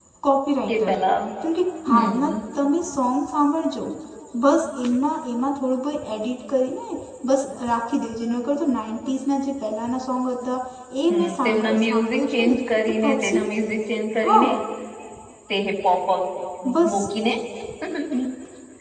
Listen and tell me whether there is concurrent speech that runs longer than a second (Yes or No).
Yes